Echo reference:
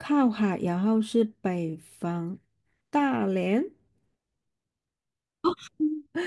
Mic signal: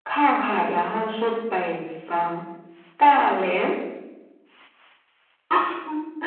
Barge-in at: none

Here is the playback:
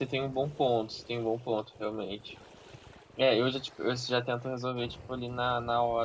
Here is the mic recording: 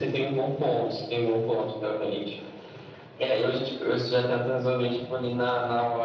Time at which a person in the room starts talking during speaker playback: none

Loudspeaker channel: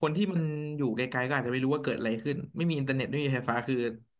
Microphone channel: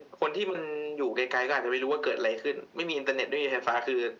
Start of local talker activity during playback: none

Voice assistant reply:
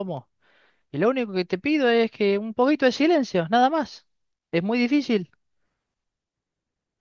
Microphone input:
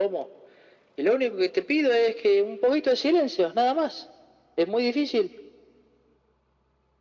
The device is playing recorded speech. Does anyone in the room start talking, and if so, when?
none

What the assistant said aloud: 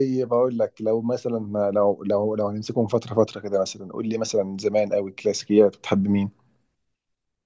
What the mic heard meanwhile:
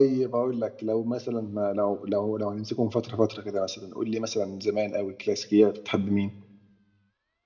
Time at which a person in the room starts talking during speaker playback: none

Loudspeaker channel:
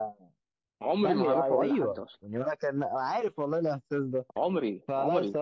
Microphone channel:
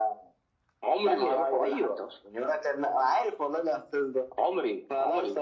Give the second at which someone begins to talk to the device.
none

